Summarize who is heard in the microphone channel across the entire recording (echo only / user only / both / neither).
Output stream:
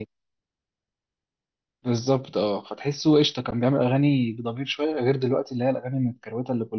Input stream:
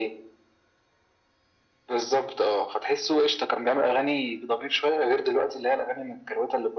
echo only